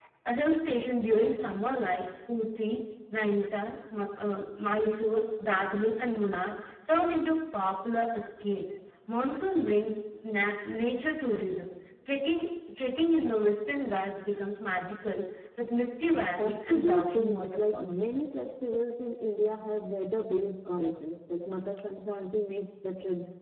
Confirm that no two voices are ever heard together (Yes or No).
No